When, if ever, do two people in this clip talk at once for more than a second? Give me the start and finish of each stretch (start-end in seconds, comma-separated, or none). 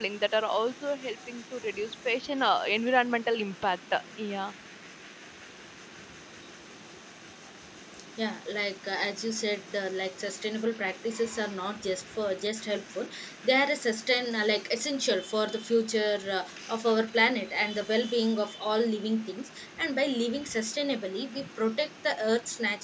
none